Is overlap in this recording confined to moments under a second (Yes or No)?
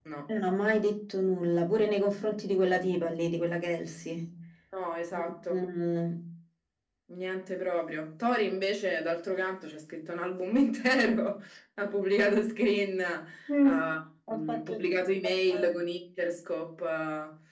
Yes